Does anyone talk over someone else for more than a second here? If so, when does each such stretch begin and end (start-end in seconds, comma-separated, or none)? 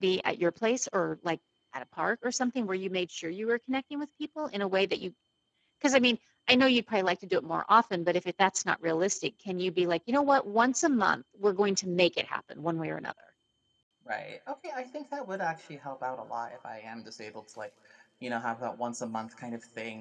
none